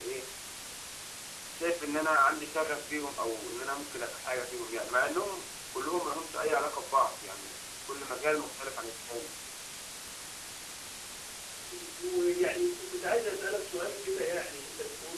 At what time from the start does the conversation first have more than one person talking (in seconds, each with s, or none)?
none